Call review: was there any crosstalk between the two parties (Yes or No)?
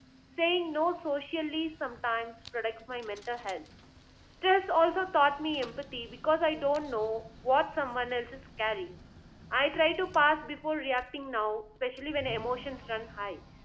No